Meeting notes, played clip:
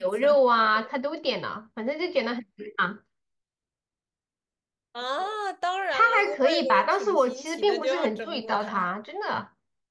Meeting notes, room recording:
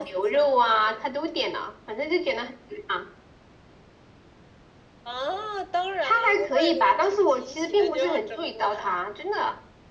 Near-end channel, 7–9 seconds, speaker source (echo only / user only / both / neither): echo only